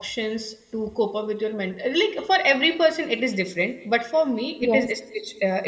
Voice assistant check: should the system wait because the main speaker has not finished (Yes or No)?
Yes